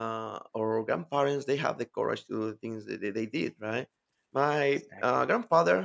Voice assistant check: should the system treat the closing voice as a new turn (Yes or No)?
No